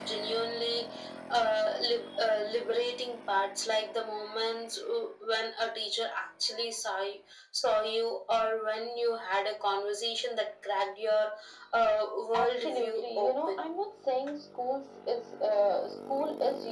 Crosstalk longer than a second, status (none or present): present